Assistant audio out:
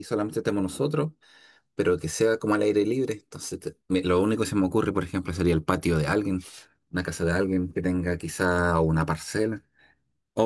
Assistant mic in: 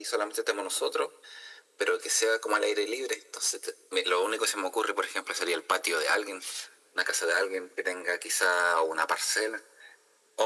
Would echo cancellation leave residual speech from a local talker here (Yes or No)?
No